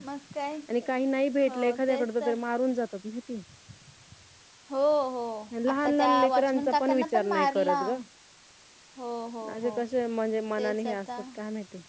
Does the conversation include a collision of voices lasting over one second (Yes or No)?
Yes